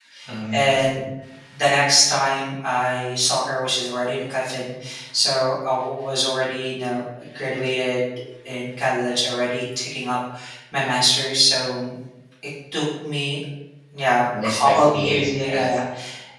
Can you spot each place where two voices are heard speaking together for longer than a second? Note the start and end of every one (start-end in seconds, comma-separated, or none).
14.4-15.6